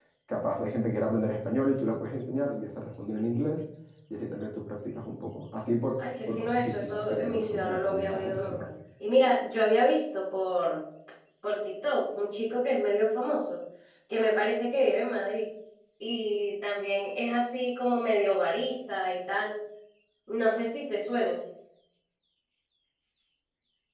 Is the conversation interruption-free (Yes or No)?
No